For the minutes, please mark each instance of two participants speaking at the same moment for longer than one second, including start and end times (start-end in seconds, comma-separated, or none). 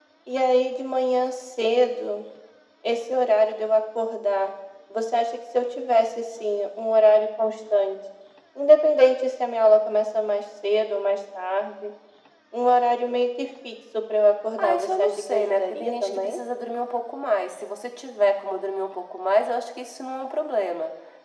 14.6-16.4